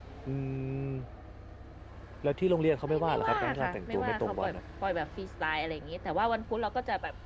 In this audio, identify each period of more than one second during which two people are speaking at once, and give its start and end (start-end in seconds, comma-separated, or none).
2.8-4.5